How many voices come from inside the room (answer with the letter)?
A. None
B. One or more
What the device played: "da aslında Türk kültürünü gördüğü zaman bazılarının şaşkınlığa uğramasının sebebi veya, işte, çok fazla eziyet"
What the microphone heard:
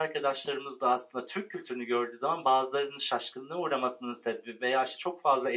A